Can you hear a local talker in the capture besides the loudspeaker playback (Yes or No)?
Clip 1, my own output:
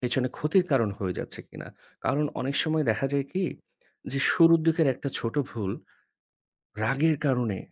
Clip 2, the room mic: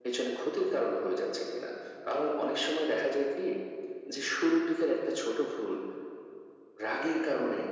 No